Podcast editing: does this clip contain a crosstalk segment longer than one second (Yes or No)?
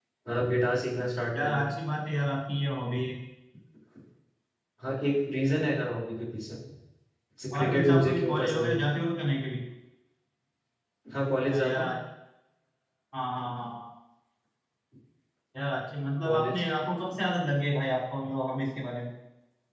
Yes